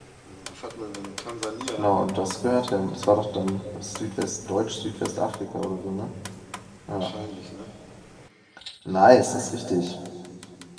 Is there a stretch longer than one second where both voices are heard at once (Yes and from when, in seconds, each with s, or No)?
No